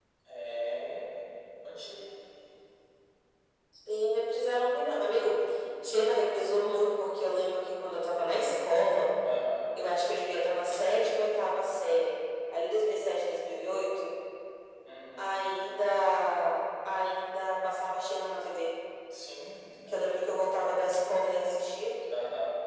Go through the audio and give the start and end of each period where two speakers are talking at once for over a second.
none

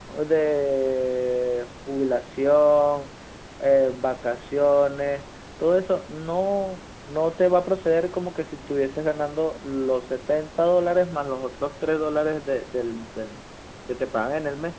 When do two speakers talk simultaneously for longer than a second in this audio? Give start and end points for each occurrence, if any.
none

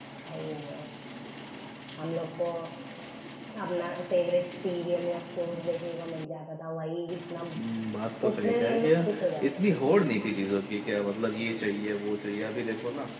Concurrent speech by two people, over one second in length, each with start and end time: 8.3-9.8

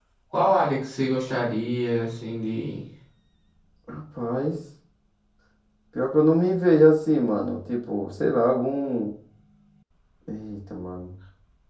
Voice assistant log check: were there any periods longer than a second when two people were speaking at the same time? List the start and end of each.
none

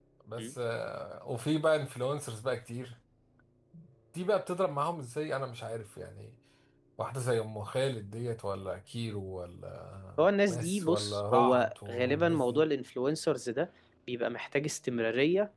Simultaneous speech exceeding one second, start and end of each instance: 10.2-12.7

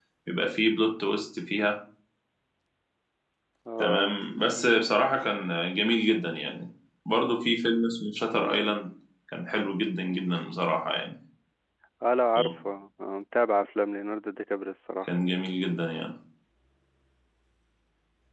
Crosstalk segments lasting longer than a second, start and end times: none

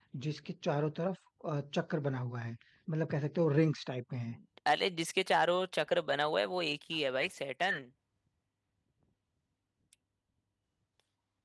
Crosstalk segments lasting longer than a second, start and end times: none

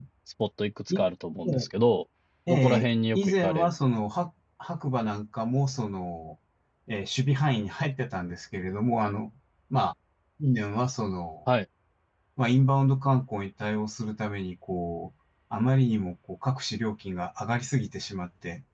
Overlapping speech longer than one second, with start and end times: 2.5-3.7

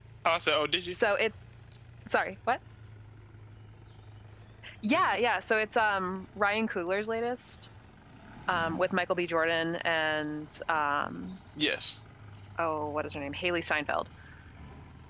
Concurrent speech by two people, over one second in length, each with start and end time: none

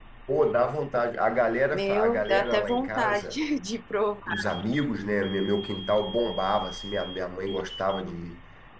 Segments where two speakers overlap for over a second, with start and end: 1.7-3.4

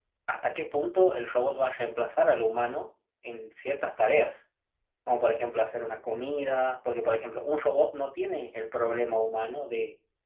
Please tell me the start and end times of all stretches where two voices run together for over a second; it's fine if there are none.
none

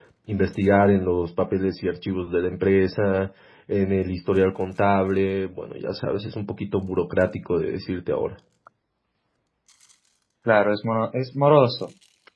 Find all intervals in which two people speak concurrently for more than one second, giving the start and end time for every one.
none

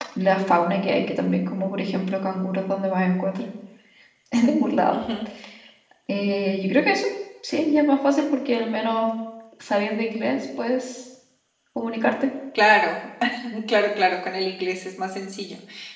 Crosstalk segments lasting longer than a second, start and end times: none

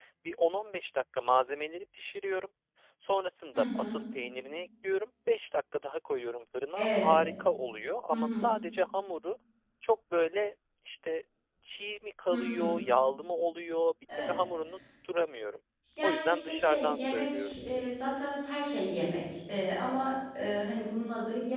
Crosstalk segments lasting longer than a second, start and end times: 16.0-17.5

